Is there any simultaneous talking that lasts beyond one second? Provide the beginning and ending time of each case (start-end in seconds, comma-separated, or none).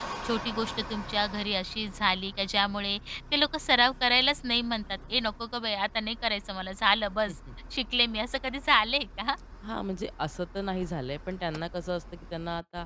none